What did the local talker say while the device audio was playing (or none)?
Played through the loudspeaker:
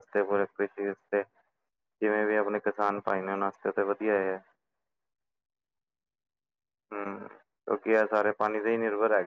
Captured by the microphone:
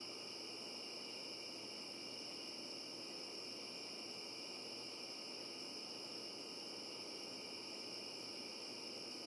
none